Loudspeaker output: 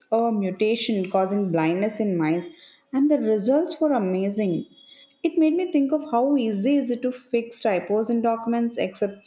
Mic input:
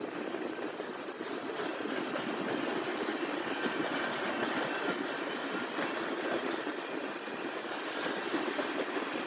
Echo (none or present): none